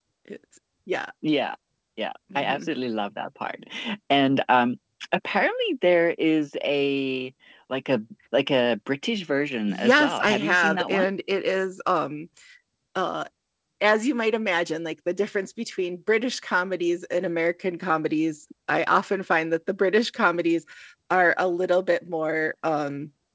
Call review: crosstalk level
present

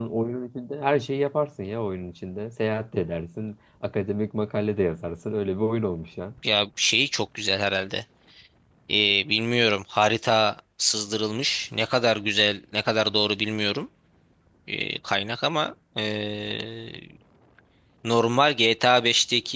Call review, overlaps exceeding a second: none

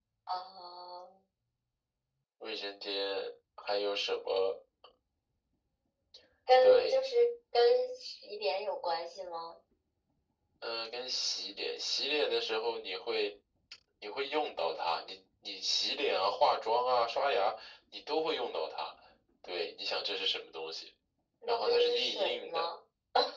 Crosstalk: present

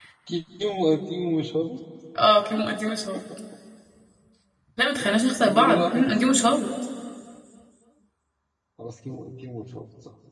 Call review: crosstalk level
present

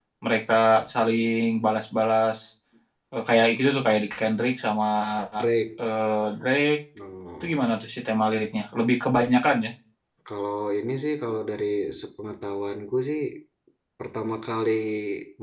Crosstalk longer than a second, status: none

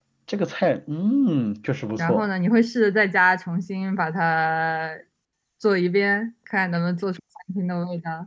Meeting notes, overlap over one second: none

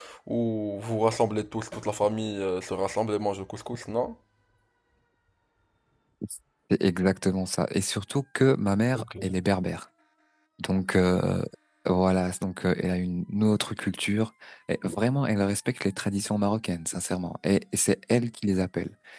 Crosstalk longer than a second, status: none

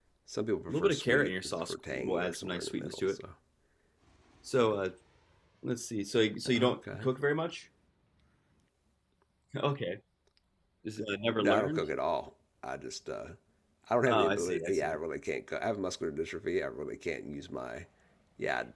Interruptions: present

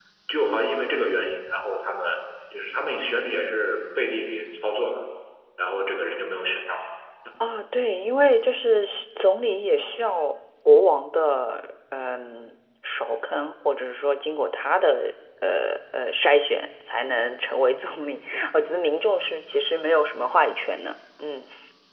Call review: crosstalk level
none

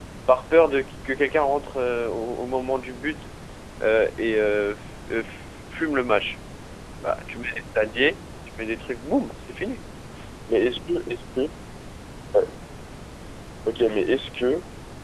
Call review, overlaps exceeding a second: none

